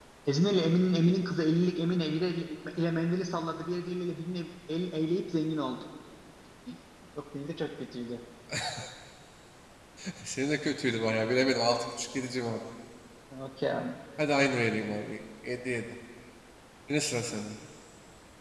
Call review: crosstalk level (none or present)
none